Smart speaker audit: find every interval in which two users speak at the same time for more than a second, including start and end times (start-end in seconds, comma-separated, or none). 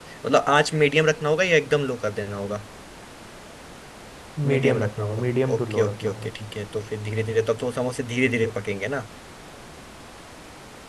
4.5-6.3